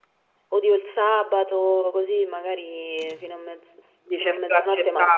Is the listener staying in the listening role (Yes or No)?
No